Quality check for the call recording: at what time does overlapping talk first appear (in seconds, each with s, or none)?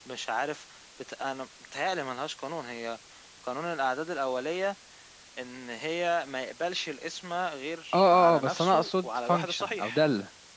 7.9 s